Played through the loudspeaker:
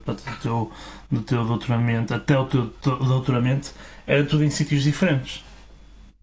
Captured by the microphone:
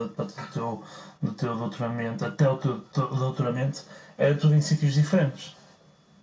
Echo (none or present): present